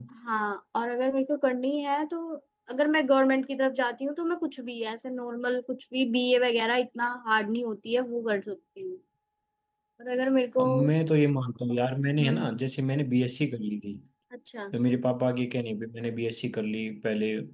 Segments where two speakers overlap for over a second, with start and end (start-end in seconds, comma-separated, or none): none